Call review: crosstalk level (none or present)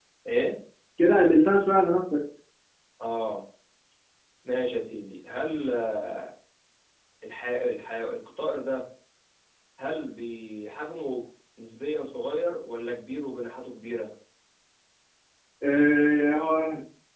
none